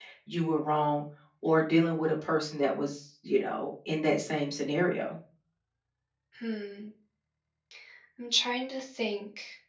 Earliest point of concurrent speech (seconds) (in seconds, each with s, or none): none